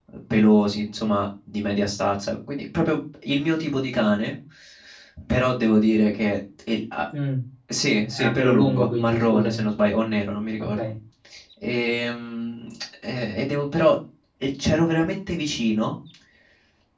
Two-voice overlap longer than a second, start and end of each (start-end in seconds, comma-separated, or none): 8.1-9.6